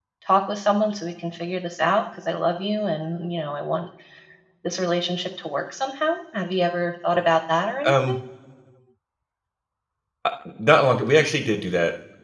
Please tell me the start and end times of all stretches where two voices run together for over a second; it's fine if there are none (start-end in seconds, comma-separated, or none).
none